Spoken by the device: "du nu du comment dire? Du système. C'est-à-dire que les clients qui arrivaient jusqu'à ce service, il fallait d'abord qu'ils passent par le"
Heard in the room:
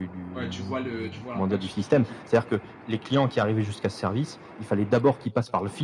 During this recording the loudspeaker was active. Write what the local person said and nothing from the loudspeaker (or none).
Ouais, tu vois le tu vois l'impact sur toute l'équipe